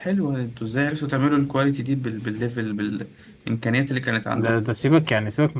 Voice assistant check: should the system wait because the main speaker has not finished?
No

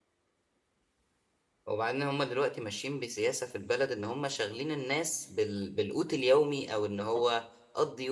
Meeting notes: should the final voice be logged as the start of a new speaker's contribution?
No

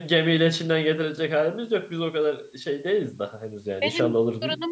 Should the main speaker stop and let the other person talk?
Yes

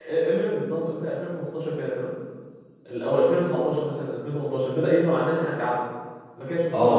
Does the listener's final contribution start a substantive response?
Yes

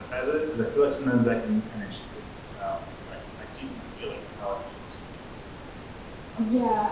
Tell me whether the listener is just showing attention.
No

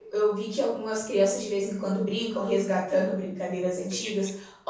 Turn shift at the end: No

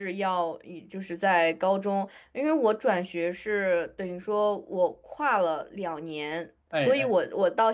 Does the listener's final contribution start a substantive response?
No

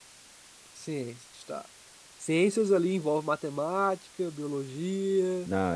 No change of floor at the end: No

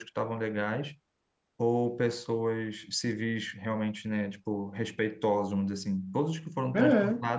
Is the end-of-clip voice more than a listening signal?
No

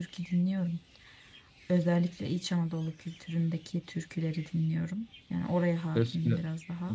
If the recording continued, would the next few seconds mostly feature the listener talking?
Yes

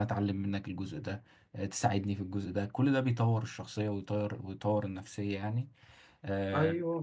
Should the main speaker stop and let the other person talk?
Yes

